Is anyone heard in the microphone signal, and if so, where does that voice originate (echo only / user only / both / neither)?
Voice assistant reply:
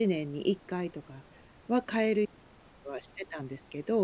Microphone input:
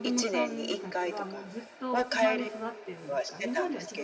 both